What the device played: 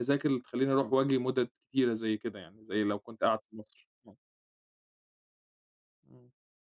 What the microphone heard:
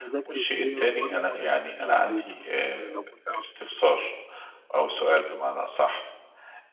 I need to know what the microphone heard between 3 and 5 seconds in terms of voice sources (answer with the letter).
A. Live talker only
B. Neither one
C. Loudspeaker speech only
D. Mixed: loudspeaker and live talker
D